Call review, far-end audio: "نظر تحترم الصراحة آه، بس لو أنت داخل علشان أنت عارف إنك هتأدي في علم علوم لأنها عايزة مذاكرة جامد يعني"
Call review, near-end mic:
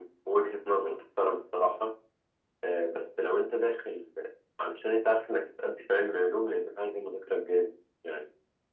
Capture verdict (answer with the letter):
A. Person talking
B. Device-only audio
B